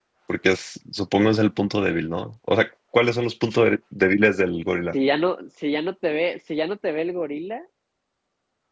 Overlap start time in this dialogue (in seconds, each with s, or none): none